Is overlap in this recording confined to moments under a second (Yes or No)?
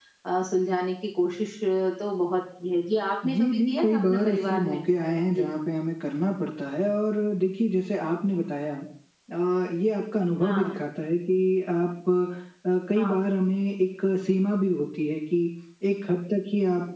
No